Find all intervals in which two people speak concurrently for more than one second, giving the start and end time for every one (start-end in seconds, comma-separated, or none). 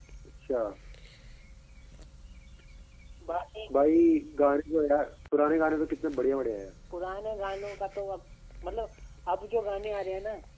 none